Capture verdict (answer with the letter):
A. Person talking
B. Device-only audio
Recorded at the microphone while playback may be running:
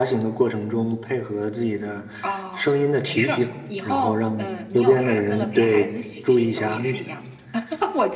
B